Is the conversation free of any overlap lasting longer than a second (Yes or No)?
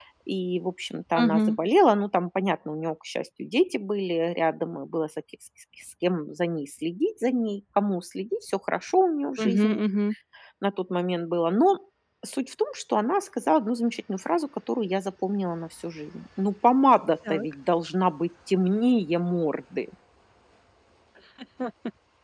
Yes